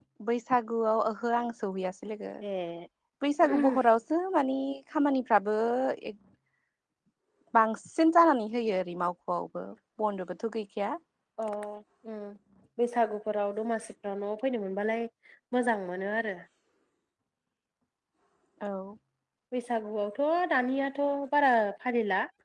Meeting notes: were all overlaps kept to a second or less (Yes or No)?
Yes